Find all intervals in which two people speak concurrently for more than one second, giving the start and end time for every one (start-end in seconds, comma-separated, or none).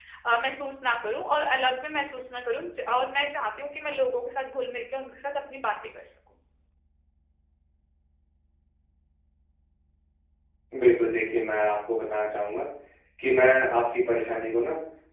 none